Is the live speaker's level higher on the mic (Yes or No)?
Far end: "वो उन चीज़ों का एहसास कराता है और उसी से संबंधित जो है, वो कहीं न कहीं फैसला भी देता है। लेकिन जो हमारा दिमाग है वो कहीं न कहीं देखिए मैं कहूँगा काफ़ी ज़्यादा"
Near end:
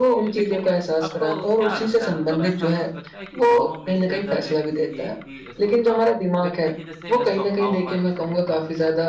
No